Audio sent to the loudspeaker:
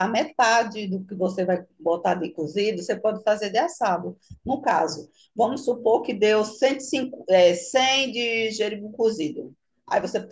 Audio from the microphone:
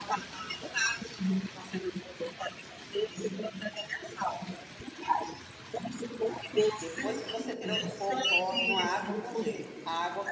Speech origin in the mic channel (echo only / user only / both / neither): both